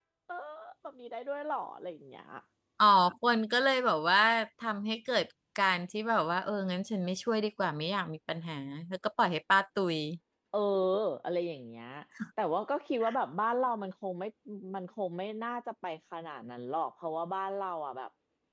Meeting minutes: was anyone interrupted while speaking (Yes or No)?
No